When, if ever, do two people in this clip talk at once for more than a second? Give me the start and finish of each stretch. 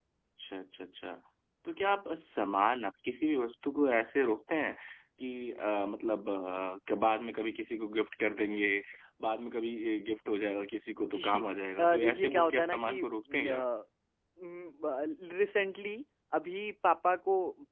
11.8-13.6

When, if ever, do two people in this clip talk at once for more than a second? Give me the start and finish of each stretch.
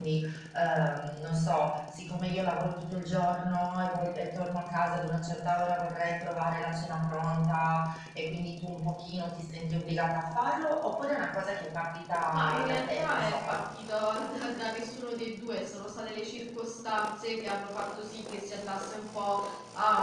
12.3-13.6

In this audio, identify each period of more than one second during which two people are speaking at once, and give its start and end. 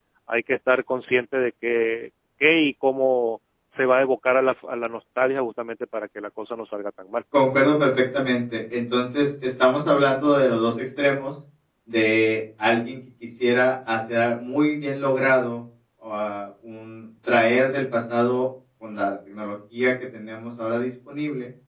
none

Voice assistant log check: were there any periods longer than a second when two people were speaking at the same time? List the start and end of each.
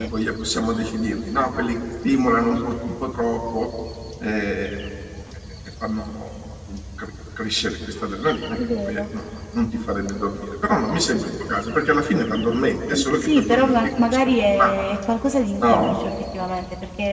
12.9-14.8

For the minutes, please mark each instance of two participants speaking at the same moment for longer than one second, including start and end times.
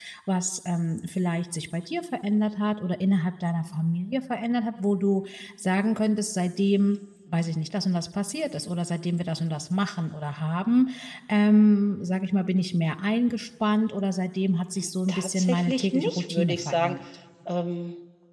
15.1-16.9

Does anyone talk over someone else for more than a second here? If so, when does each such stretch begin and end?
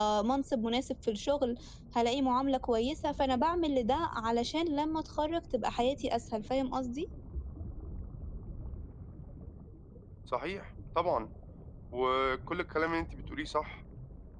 none

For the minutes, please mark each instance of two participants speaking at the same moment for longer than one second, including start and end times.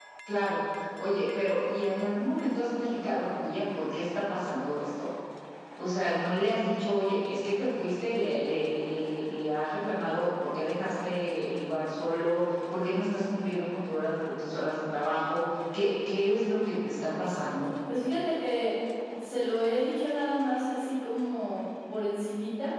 none

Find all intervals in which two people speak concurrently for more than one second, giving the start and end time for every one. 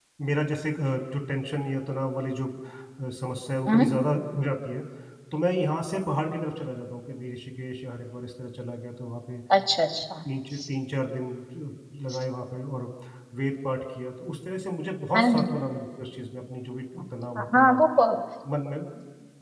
none

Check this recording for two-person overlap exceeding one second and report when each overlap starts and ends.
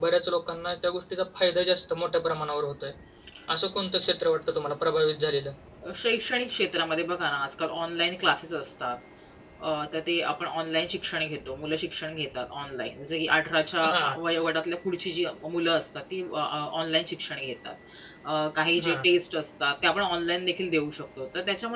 none

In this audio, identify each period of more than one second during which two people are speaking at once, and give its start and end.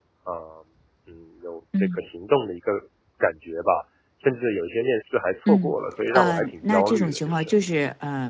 6.1-7.5

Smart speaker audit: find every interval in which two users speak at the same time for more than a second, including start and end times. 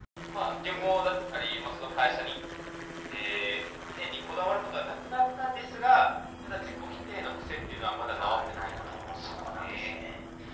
8.1-10.0

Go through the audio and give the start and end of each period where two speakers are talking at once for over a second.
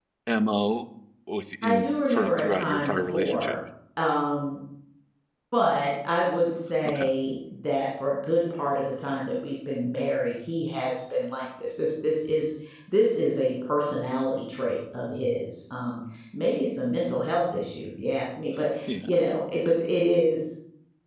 1.6-3.5

